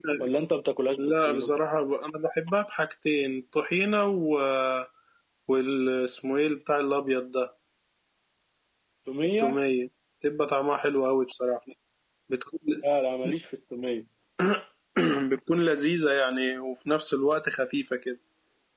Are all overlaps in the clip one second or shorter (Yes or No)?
Yes